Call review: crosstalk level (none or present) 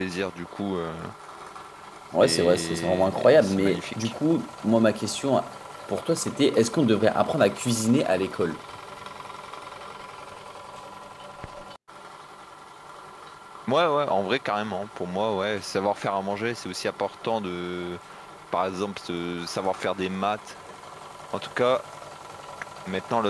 present